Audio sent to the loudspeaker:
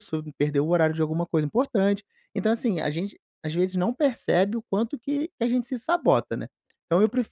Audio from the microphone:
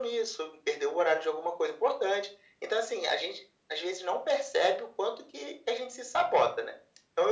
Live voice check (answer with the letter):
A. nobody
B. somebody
A